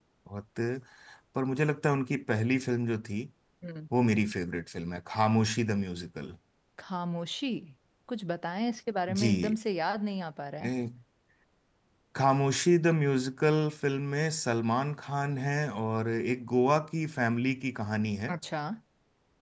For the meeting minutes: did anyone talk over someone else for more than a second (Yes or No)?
No